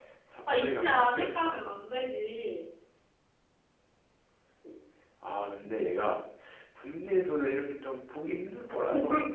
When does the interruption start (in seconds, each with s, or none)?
0.5 s